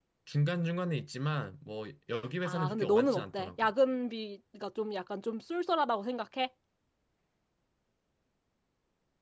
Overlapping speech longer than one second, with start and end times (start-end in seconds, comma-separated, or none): 2.4-3.7